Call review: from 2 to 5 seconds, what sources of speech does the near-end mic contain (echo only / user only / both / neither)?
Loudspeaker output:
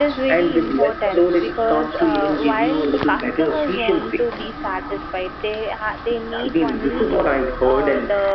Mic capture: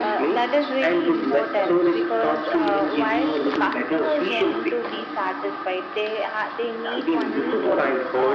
echo only